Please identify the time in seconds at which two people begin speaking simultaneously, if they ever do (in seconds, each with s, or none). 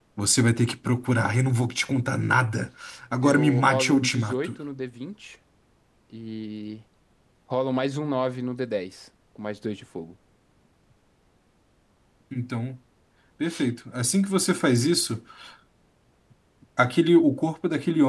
3.2 s